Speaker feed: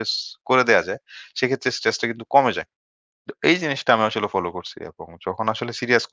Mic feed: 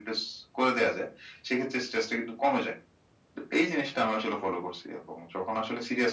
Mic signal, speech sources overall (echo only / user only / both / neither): echo only